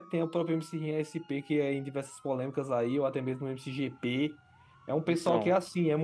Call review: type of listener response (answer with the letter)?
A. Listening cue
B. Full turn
A